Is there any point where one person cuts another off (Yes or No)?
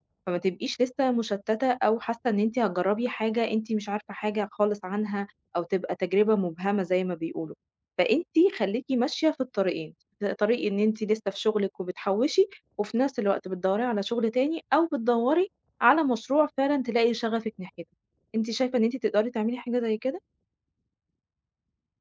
No